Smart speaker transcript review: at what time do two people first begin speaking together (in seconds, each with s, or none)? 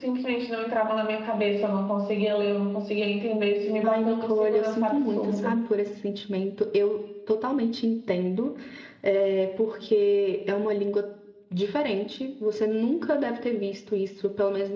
3.8 s